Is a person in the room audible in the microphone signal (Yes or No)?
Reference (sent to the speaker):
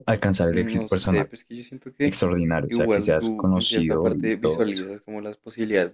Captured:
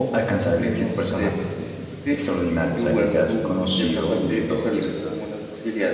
Yes